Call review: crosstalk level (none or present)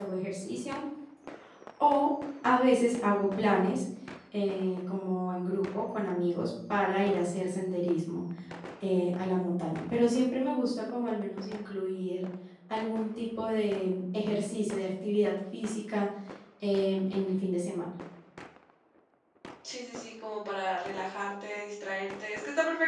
none